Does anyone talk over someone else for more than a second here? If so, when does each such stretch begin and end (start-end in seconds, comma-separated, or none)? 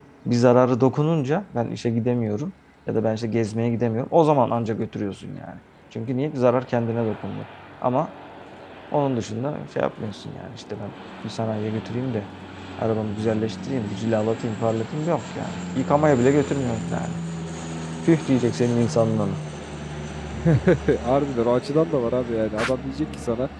none